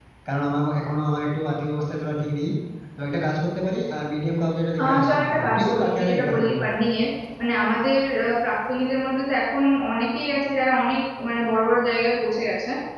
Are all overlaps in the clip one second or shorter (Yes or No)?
No